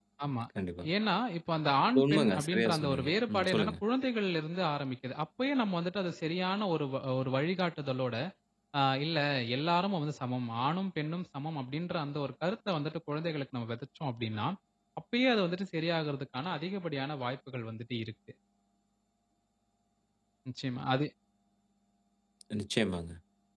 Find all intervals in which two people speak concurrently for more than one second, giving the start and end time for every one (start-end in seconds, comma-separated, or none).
1.9-3.7